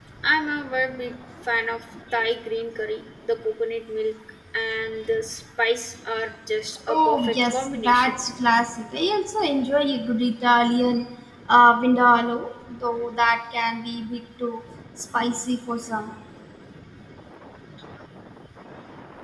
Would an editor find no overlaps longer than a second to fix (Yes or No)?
No